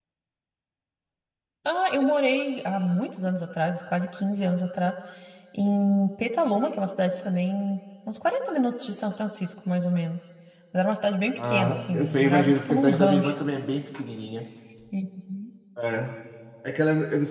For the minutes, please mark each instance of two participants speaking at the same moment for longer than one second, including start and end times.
11.3-13.4

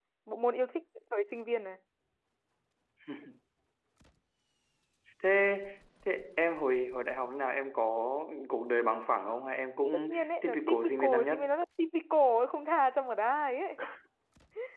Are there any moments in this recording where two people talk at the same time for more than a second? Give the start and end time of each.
10.1-11.4

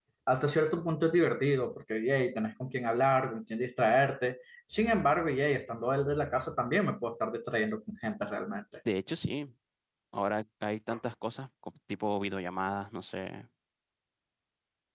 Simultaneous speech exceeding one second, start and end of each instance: none

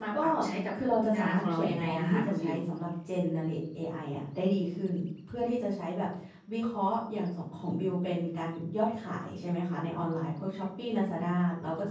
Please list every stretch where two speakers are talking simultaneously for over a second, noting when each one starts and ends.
1.1-2.6

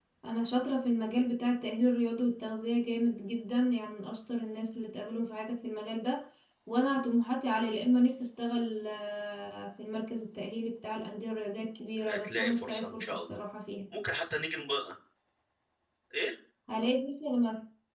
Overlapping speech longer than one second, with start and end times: 12.1-13.4

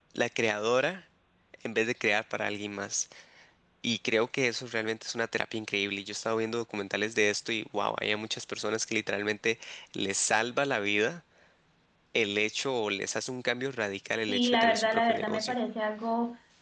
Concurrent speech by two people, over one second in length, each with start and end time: 14.3-15.6

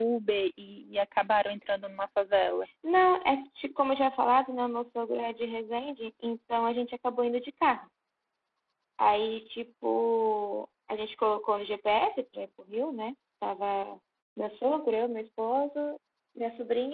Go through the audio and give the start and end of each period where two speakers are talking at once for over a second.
none

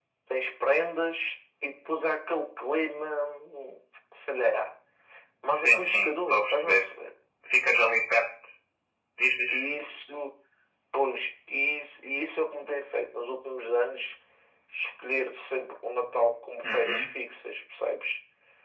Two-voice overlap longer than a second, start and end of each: 5.5-6.8

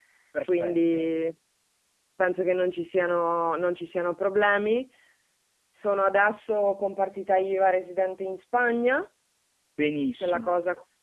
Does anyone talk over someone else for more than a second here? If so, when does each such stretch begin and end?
none

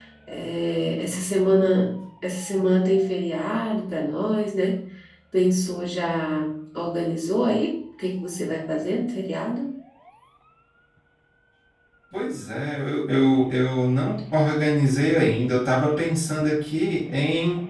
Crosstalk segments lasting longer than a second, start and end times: none

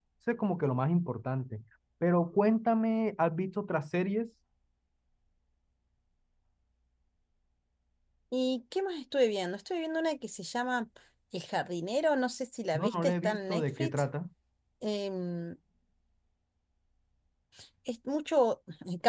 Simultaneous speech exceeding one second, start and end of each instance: 12.8-14.0

